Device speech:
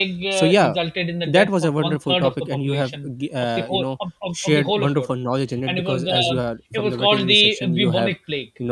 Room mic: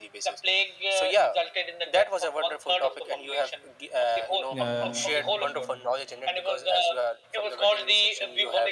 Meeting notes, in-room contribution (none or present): present